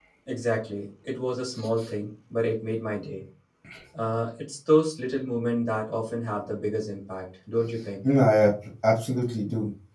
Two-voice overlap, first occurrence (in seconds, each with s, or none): none